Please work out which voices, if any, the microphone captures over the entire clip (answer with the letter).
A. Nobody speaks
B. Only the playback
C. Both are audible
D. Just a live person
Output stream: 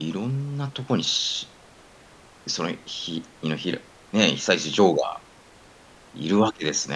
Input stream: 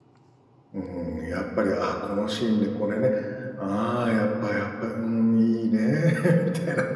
D